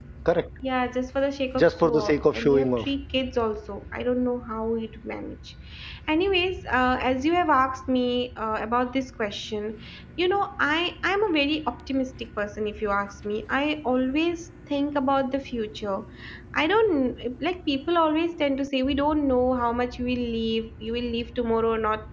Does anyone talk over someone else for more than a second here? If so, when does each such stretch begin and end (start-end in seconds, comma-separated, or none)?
1.6-2.9